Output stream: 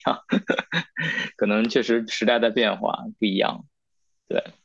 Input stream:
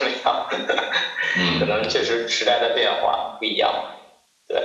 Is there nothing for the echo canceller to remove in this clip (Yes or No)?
No